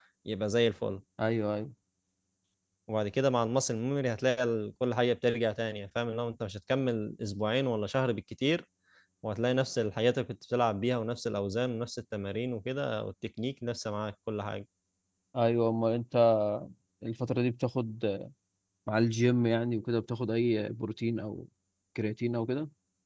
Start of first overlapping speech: none

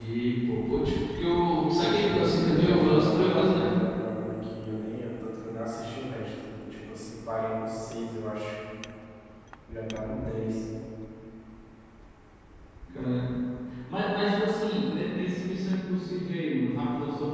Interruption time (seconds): 1.7 s

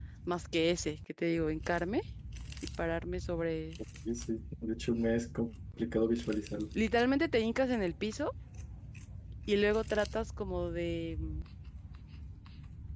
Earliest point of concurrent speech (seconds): none

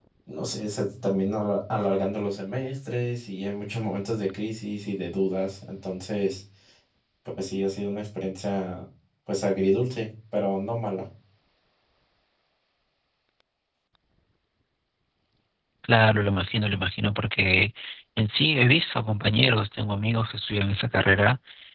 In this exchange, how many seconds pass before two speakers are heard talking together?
none

